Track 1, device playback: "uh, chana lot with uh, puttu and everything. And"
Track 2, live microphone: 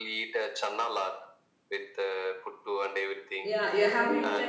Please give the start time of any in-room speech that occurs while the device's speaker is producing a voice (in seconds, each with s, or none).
3.4 s